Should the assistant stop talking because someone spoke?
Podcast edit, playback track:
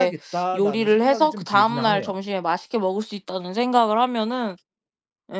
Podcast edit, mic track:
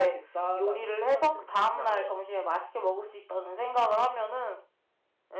No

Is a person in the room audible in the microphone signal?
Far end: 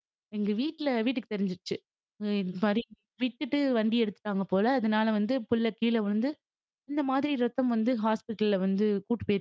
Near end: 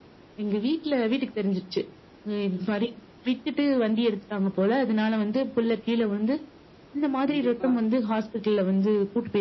Yes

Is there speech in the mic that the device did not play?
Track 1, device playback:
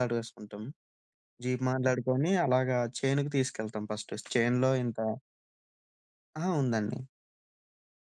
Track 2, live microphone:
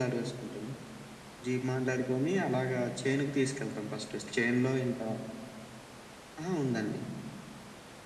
No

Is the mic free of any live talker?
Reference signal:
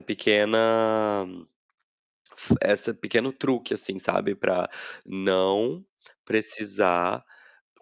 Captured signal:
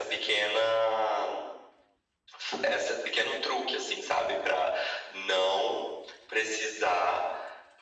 Yes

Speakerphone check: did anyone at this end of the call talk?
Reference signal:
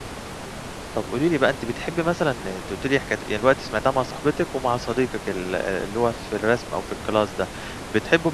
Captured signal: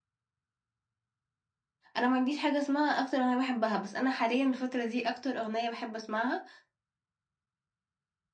Yes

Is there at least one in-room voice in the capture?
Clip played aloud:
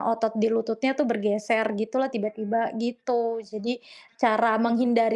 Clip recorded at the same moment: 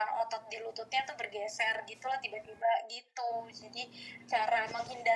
No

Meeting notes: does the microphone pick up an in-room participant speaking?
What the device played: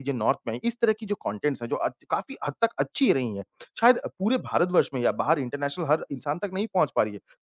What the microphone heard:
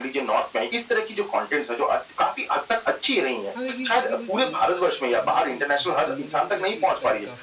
Yes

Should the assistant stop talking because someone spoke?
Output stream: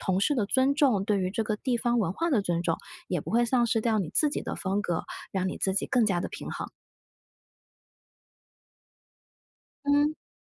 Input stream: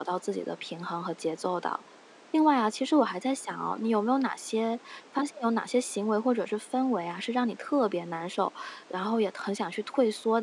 Yes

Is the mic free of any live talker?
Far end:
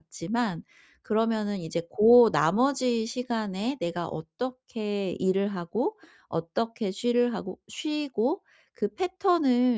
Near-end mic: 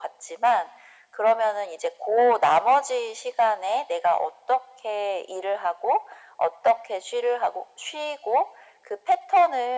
Yes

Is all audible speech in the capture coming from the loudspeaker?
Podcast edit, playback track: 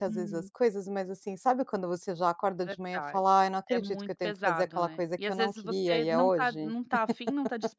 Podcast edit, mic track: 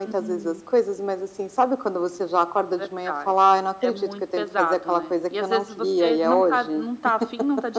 Yes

